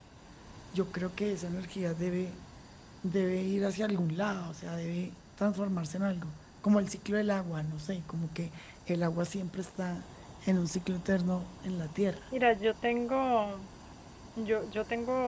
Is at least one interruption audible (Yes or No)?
No